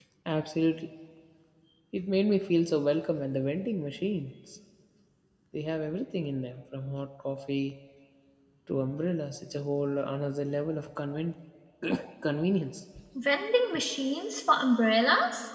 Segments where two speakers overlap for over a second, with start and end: none

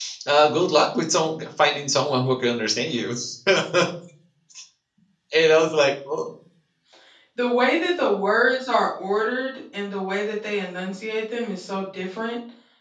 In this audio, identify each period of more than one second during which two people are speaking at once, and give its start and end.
none

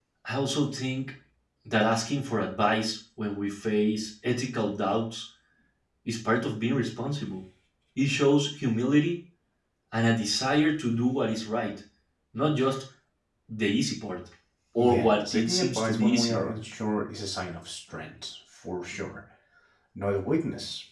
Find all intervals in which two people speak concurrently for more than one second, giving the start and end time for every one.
14.8-16.4

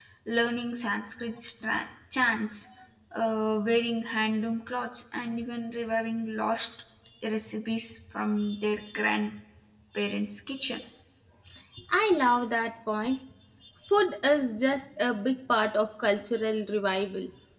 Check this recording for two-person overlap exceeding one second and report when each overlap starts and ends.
none

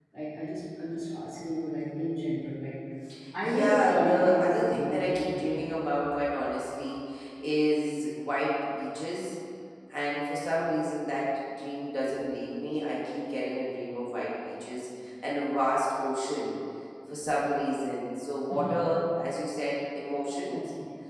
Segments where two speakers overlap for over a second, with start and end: 3.4-5.4

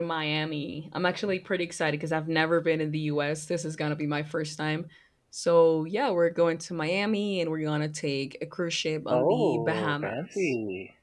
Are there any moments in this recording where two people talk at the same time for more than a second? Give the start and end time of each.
9.1-10.5

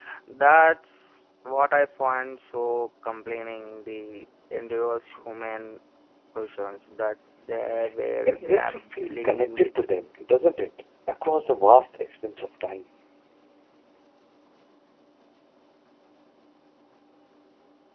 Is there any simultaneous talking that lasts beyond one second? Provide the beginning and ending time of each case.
8.3-9.7

